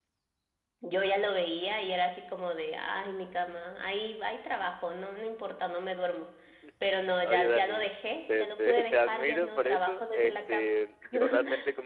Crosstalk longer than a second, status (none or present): present